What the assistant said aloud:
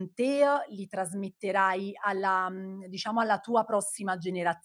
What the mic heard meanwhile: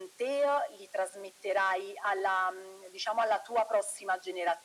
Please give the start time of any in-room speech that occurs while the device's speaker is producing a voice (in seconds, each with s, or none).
none